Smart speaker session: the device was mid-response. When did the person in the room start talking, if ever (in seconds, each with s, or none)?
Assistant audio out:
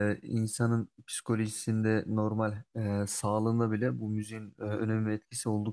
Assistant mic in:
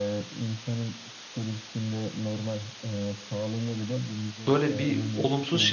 4.5 s